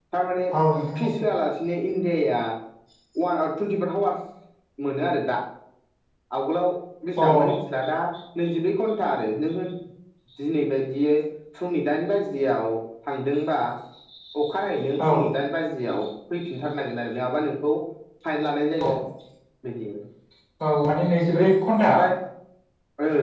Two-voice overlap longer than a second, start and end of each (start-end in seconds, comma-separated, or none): none